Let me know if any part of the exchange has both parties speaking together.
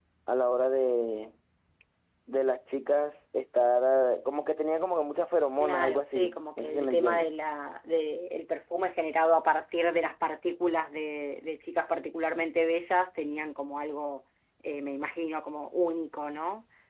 Yes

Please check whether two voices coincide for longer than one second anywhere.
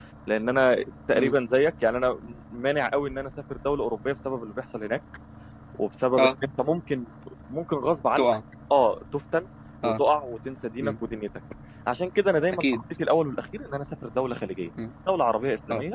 No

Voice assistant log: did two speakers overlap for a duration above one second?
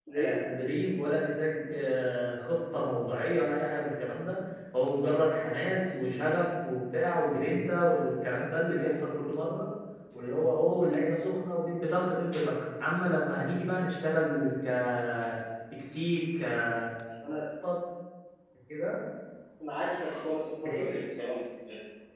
No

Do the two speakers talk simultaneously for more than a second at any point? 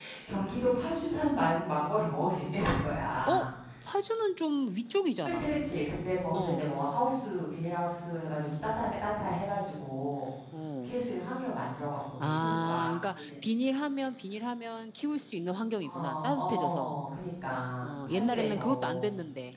Yes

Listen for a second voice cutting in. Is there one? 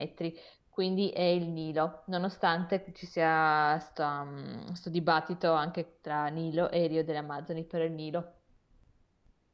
No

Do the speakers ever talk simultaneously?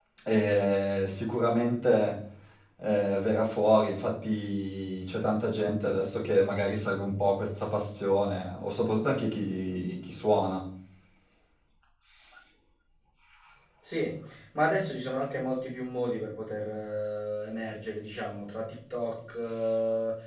No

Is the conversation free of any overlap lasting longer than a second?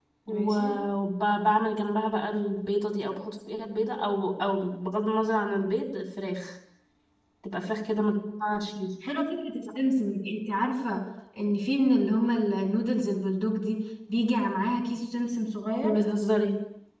Yes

